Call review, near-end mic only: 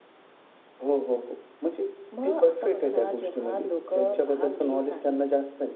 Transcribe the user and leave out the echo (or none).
none